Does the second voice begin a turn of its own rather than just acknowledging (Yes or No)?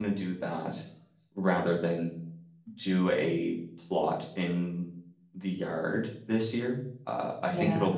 No